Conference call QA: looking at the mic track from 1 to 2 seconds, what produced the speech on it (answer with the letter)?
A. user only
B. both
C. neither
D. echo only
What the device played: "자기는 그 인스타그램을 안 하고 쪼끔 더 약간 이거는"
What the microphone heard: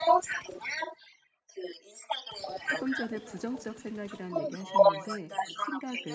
D